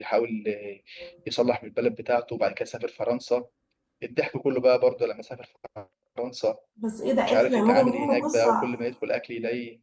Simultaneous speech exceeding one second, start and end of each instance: 7.3-8.7

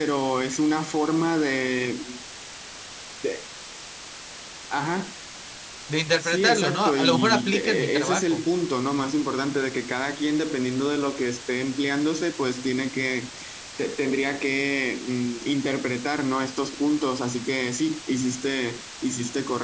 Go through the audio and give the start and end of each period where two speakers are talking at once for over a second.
6.2-8.4

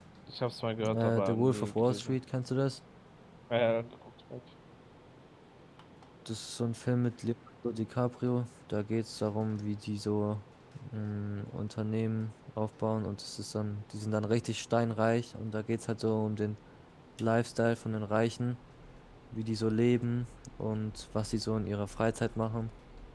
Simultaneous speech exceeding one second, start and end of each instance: 0.9-2.2

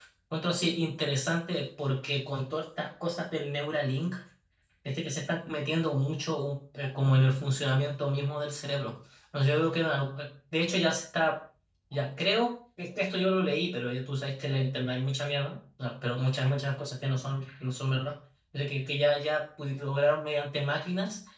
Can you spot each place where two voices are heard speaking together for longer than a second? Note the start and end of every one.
none

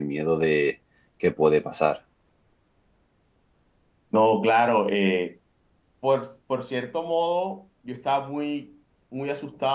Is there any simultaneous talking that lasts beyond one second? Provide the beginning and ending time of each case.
none

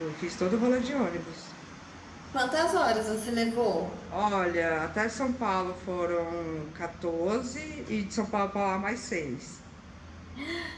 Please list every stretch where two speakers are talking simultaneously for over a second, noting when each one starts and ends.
none

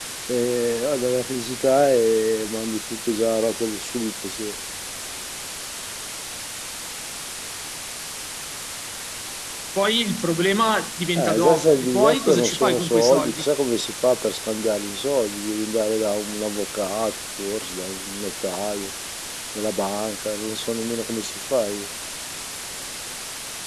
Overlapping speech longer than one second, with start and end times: 11.2-13.4

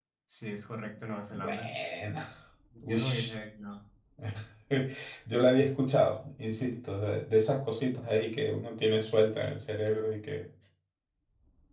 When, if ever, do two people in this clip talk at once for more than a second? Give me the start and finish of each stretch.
none

